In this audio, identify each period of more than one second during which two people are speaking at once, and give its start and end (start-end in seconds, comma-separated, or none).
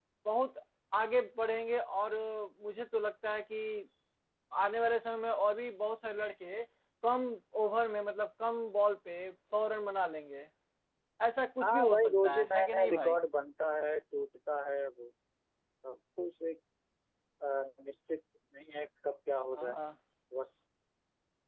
11.6-13.2